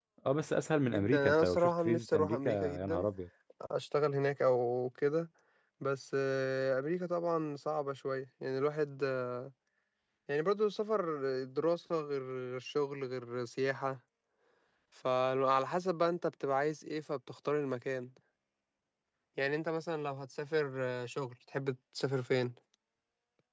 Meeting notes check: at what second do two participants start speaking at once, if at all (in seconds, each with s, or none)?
0.9 s